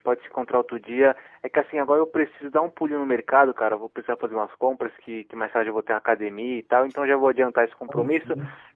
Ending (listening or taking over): listening